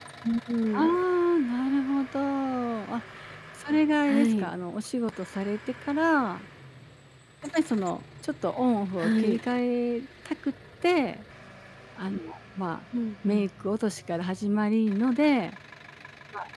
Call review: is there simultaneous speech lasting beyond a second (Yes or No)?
No